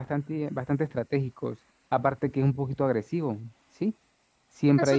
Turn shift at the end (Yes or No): Yes